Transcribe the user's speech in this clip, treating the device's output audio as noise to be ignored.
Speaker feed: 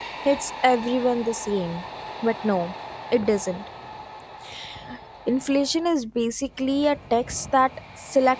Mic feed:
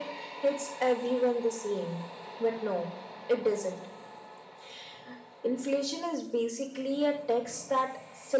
none

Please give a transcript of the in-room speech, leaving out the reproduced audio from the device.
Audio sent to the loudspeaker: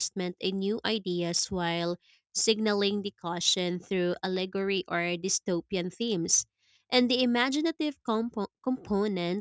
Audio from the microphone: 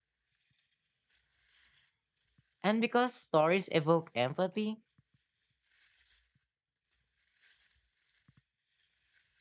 And because stories evoke empathy,

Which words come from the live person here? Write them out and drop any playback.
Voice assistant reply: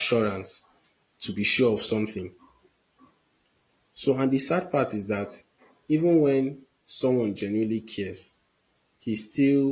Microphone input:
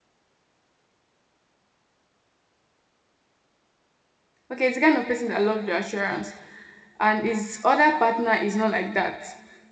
okay, it's the kind of person that loves reassurance, and his other partner is not like that.

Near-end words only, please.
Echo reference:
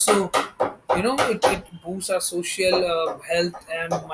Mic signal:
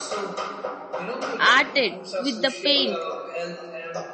arted with the paint

